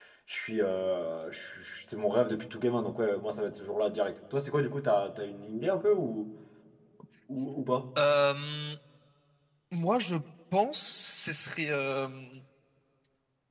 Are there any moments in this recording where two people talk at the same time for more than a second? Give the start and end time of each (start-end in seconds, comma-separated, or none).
none